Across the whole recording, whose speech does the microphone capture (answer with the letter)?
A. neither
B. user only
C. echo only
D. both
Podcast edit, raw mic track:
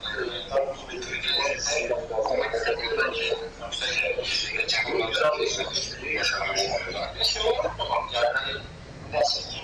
C